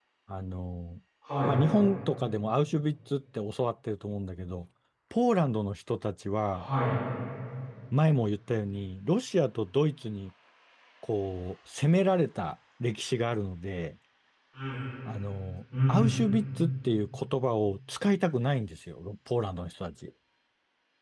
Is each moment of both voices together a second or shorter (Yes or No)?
Yes